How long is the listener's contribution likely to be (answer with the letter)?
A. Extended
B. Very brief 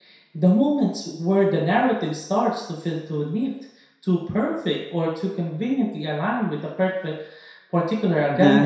A